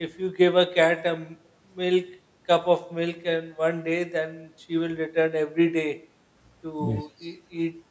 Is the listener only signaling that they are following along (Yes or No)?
Yes